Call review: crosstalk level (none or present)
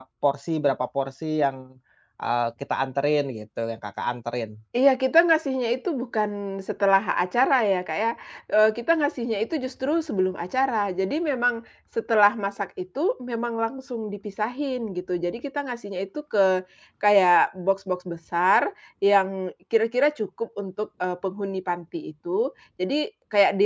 none